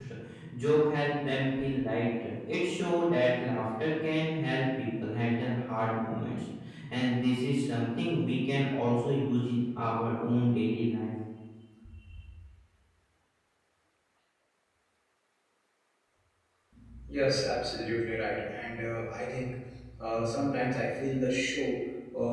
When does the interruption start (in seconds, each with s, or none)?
none